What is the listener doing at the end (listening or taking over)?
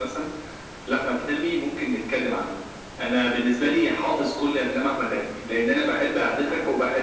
listening